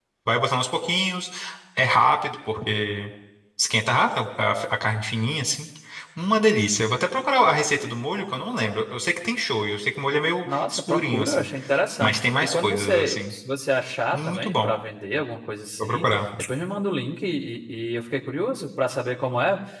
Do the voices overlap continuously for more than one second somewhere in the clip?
Yes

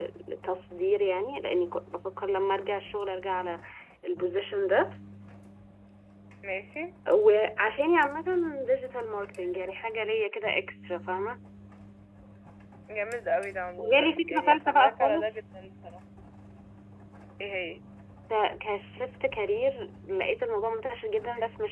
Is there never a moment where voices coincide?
No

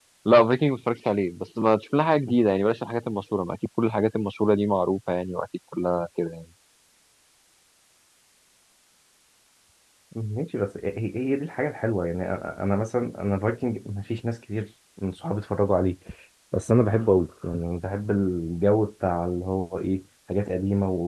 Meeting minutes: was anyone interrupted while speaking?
No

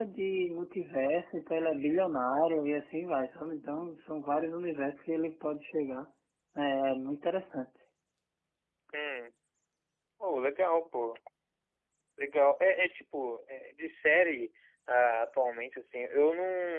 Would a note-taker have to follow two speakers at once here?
No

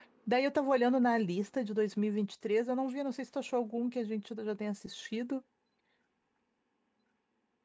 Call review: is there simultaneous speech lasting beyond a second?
No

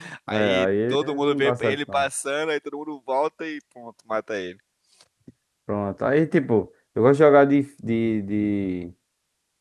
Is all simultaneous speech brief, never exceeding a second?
No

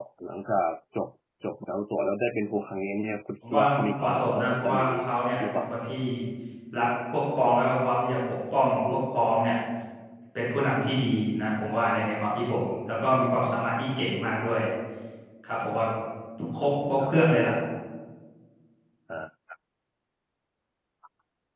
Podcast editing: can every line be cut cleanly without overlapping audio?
No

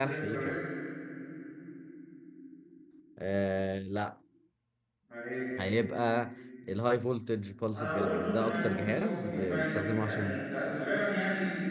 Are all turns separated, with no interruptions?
No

